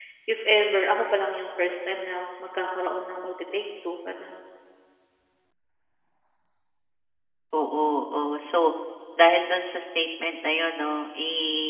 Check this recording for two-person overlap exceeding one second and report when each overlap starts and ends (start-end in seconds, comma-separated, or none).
none